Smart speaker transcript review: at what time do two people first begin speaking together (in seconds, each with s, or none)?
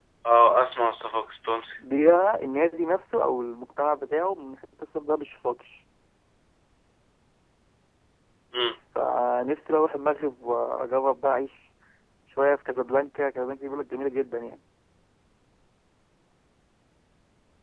none